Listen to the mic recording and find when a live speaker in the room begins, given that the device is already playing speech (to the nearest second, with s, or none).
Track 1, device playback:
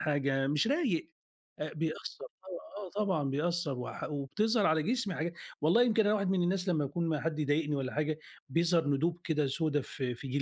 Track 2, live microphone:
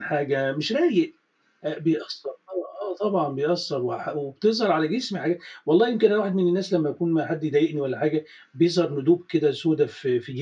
none